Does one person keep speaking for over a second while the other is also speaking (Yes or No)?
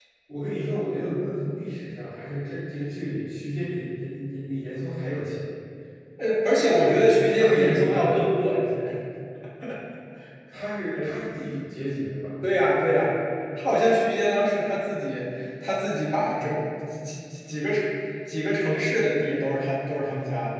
Yes